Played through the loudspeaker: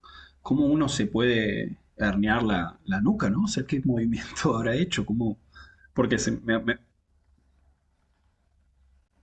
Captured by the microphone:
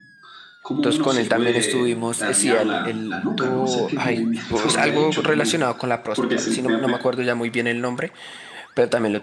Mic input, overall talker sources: both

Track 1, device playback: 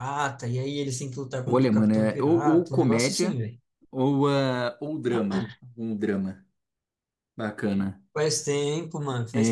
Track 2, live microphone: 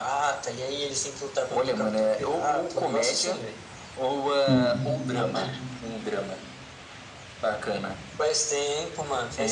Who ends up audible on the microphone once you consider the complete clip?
both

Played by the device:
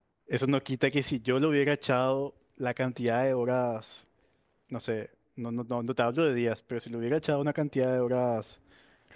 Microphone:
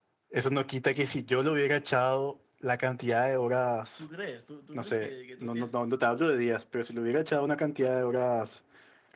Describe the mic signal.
both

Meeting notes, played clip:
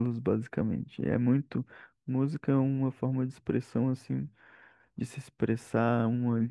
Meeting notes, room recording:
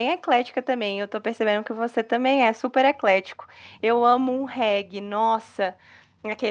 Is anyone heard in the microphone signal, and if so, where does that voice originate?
user only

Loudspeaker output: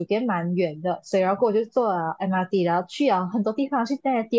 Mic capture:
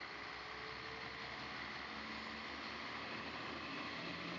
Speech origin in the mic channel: neither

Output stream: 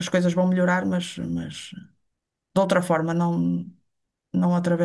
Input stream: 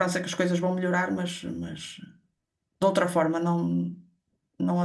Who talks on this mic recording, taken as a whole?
echo only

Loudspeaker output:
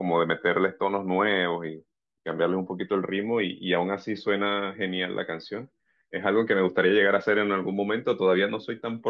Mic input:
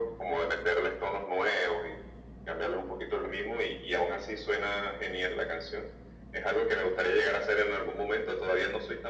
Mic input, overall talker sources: echo only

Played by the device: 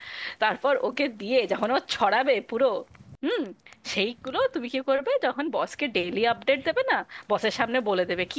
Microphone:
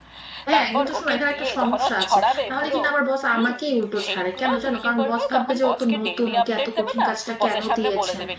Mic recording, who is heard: both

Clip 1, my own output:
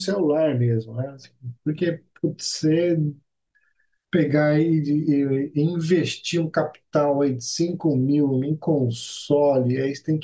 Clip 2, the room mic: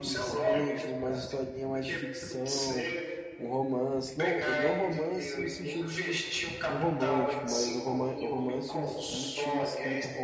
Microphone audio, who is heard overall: both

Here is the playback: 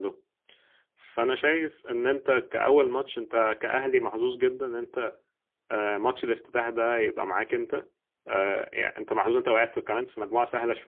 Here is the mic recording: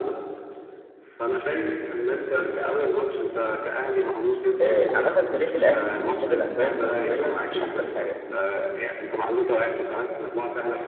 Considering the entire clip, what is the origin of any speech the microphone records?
both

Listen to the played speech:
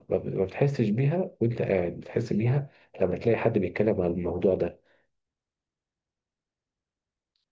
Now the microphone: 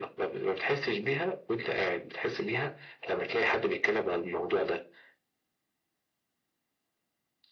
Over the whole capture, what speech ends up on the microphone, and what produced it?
echo only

